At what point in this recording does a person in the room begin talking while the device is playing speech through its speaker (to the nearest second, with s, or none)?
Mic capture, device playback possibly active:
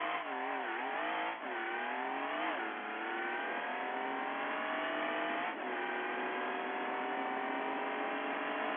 none